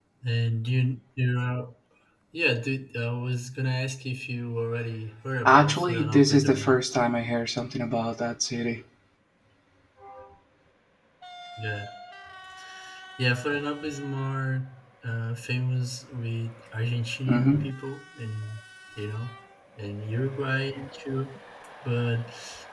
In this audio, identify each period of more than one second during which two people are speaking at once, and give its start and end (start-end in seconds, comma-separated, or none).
5.5-6.8